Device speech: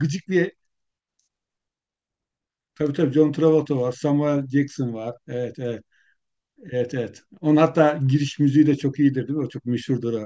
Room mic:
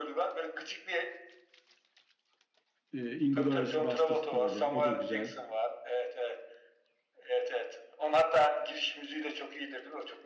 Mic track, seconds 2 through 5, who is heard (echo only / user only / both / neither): both